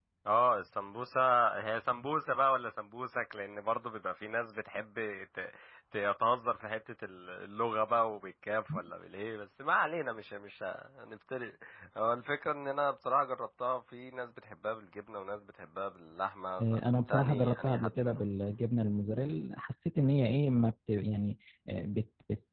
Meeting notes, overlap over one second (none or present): present